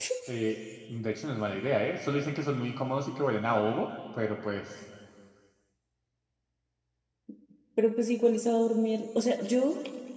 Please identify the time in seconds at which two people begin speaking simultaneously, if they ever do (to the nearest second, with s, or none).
none